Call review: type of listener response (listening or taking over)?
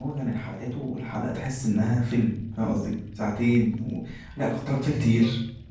listening